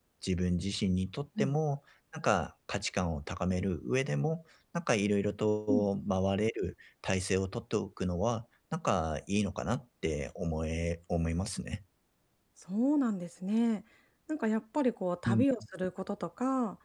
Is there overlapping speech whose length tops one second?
No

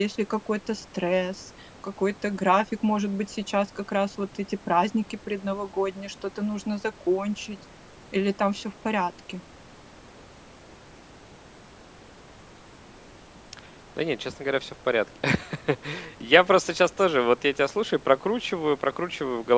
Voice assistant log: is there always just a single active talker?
Yes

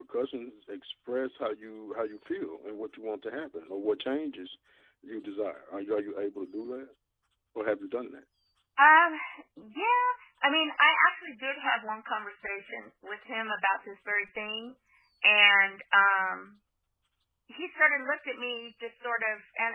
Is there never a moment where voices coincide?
Yes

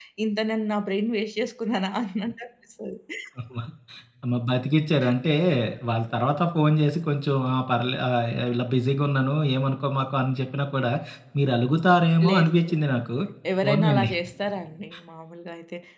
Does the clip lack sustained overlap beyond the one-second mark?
Yes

